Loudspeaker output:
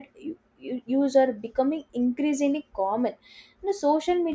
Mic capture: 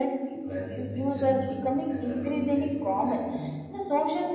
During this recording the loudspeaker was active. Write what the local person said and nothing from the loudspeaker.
practice digital literacy, and adopt safe online habits.

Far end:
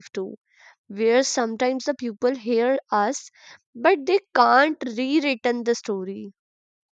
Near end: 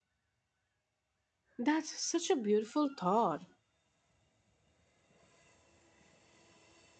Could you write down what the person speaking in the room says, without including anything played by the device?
That's such a beautiful thought.

